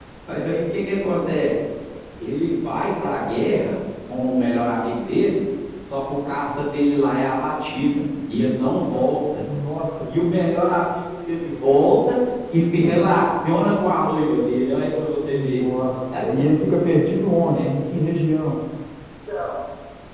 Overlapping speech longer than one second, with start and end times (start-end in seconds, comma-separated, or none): none